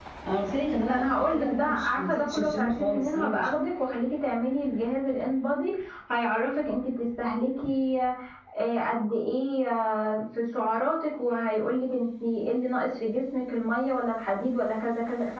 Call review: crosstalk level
present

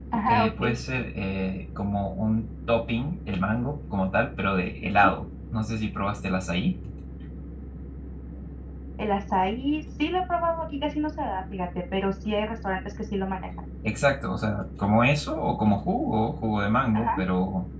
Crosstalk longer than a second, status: none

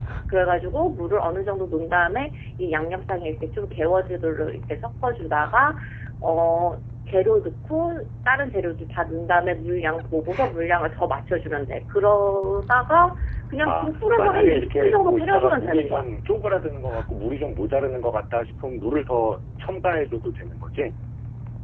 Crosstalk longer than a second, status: present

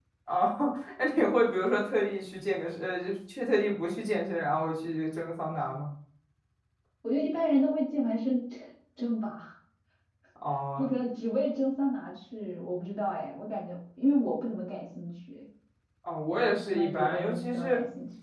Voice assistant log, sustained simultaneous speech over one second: present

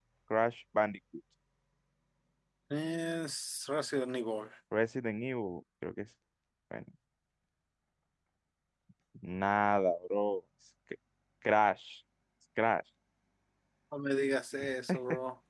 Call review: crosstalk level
none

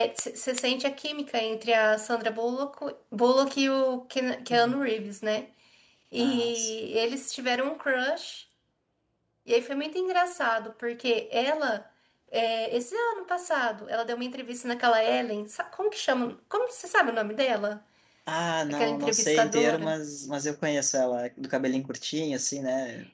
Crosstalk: present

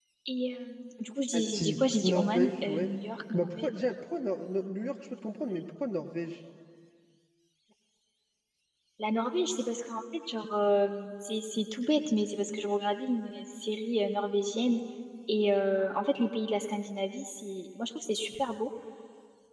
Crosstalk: present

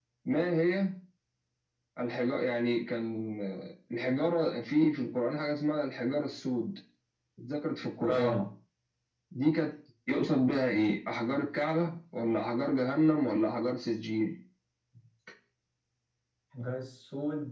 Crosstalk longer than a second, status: none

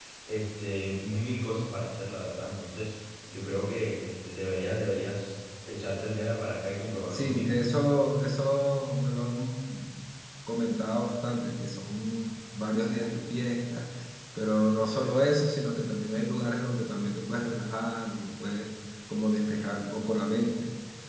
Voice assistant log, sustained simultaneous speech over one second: none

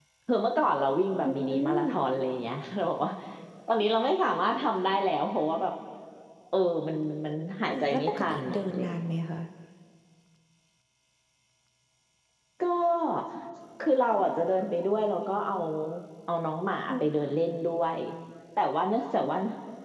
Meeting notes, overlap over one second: present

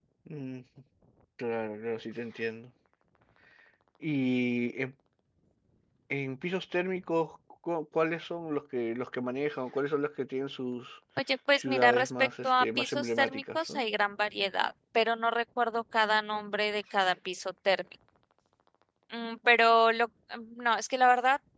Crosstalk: present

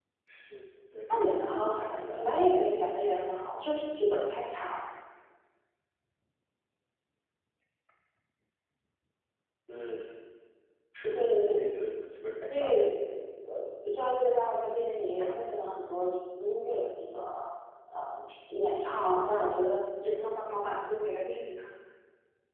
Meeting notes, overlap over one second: present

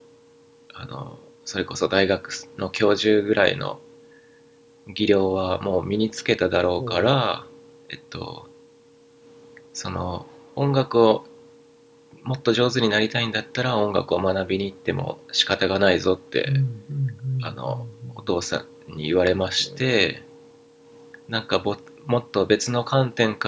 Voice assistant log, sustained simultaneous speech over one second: none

